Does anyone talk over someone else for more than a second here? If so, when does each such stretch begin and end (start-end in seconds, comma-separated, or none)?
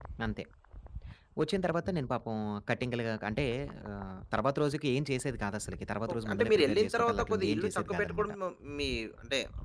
6.1-8.3